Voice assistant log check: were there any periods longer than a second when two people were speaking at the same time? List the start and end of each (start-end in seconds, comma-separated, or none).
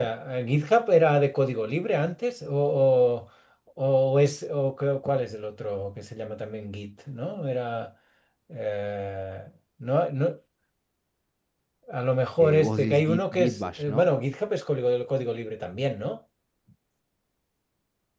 12.4-14.1